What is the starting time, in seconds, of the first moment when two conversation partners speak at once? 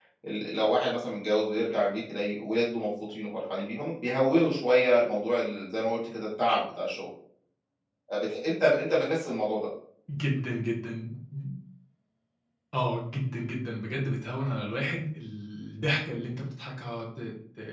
none

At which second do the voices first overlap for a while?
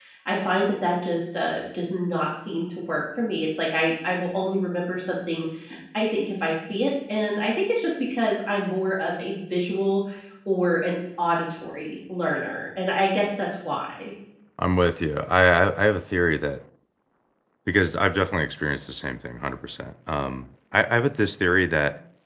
none

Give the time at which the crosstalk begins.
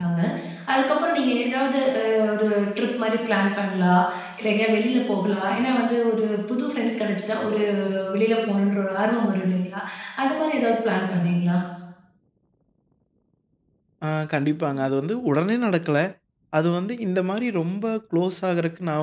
none

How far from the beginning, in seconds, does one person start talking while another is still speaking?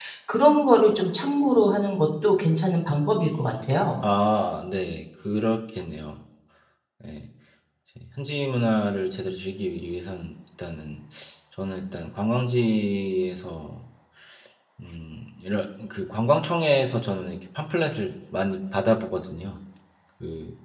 none

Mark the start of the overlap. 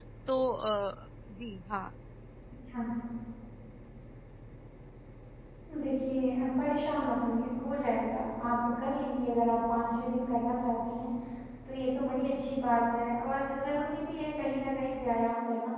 none

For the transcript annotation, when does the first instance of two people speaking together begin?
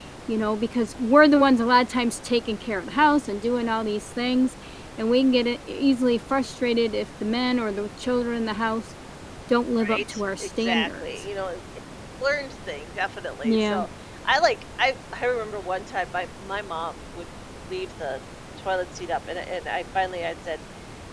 9.8 s

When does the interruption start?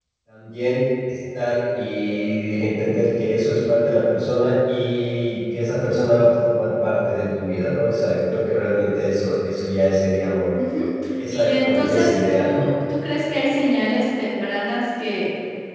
11.3 s

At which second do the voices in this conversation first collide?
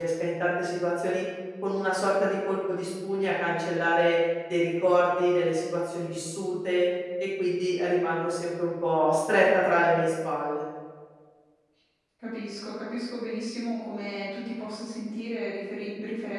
none

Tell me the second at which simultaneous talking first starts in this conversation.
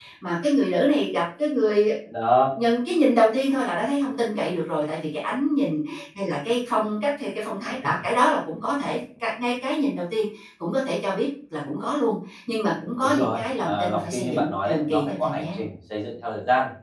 13.0 s

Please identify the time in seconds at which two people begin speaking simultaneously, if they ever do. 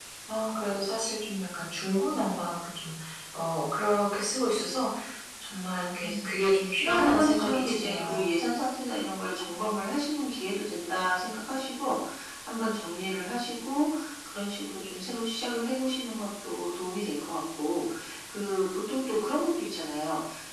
6.0 s

